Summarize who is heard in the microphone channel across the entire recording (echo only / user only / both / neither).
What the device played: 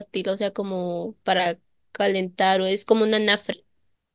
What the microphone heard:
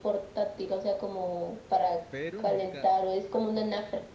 both